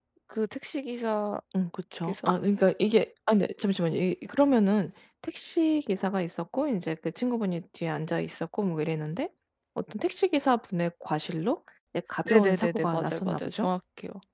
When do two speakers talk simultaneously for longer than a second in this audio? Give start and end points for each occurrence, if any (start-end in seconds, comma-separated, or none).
12.2-13.7